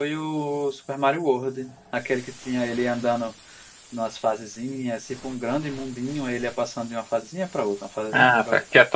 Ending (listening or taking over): taking over